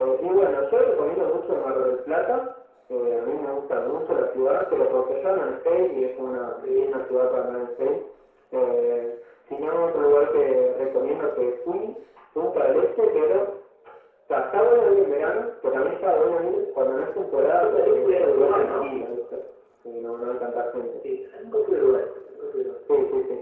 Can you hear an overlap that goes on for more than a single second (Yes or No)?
Yes